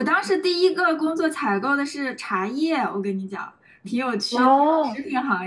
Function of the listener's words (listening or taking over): listening